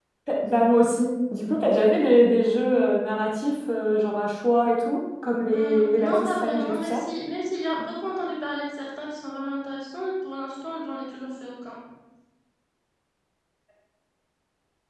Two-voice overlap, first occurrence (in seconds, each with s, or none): 5.5 s